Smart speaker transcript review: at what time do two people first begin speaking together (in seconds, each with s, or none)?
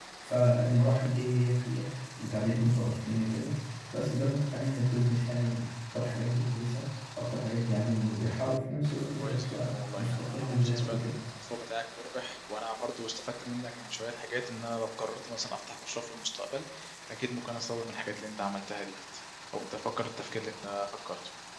9.2 s